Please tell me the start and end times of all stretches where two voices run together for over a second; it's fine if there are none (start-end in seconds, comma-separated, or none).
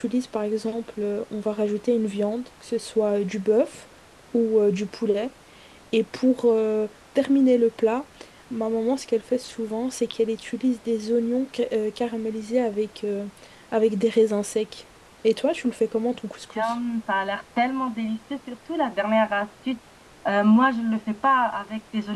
none